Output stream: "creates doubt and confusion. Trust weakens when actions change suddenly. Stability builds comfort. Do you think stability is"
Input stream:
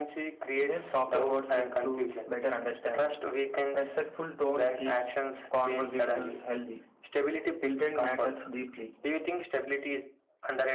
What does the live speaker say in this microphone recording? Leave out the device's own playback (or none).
Yes, softer words lead to better understanding. Respectful tone keeps conversations healthy. Intent matters deeply.